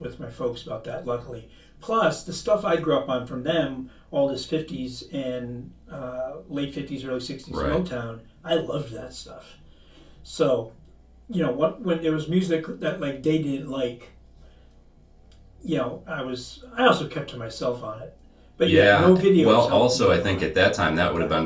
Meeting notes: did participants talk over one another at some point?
Yes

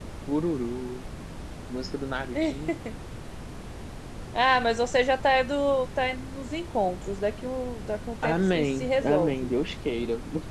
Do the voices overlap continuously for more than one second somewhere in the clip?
Yes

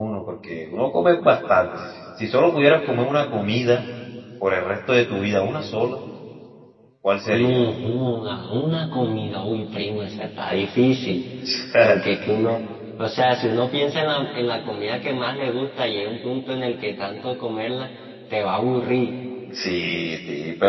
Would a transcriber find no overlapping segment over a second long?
Yes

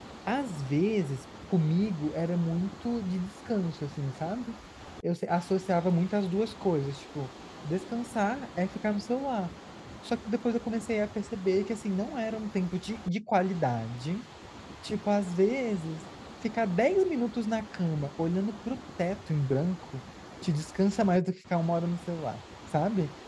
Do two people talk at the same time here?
No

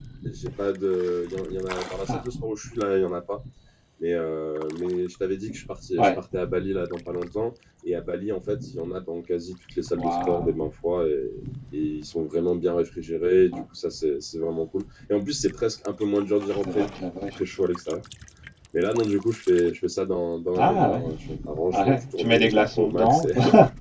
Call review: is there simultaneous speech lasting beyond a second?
Yes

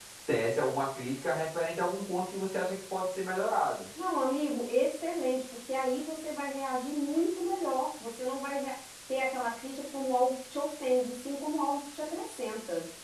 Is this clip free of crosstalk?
Yes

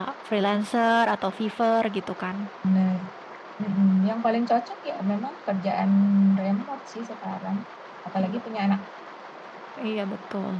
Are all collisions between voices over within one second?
Yes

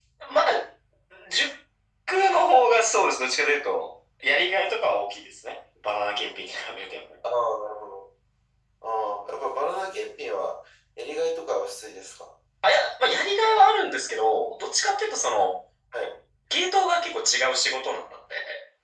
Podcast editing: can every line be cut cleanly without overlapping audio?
Yes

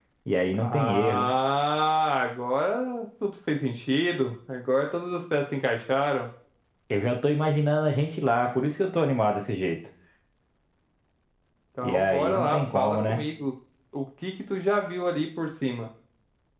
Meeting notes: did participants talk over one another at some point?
Yes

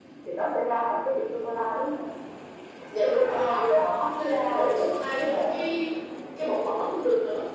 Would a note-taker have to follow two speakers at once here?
Yes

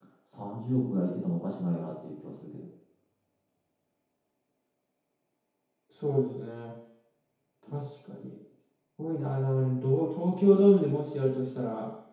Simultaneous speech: No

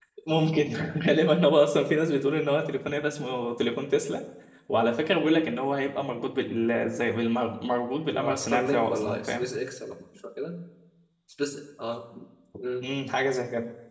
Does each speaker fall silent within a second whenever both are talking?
No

